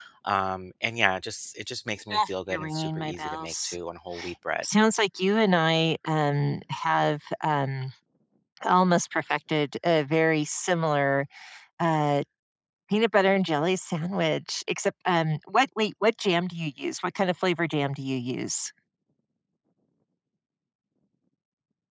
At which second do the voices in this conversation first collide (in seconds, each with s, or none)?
2.1 s